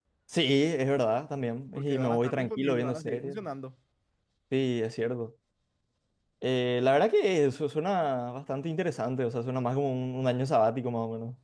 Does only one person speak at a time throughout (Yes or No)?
No